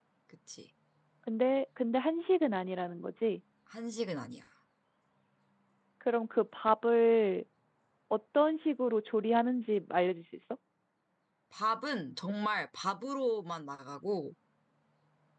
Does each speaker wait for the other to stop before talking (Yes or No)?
Yes